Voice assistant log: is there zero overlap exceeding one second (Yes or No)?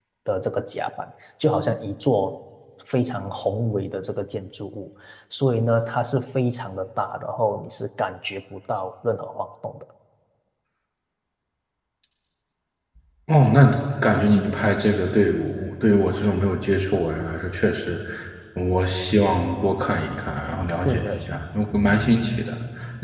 Yes